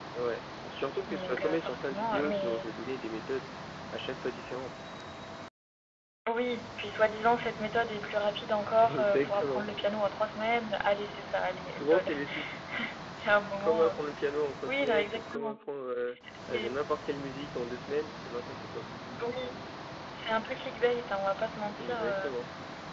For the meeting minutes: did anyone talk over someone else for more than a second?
Yes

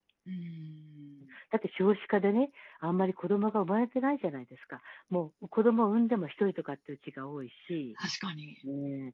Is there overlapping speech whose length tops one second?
No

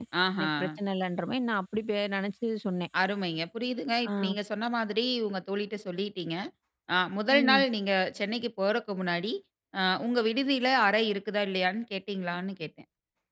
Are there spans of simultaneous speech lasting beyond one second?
No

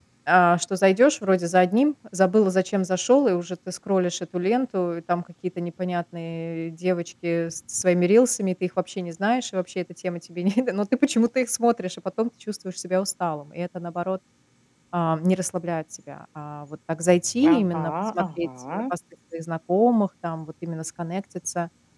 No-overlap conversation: No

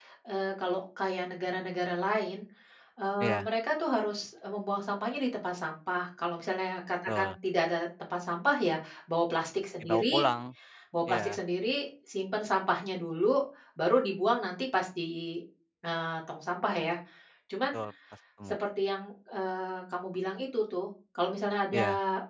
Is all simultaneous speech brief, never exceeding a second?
Yes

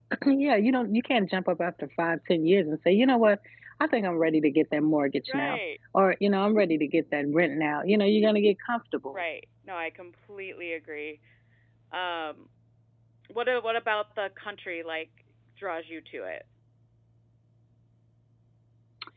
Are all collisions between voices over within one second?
Yes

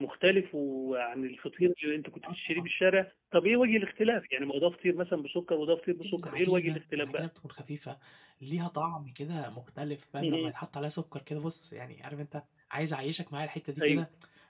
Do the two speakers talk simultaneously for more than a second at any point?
Yes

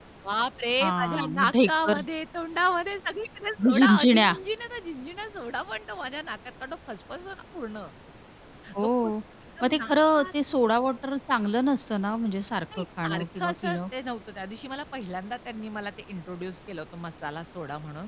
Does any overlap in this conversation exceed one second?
Yes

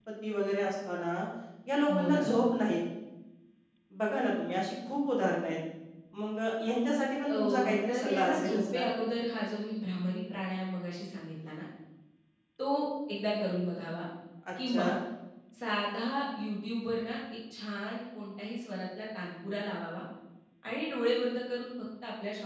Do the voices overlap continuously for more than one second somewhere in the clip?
Yes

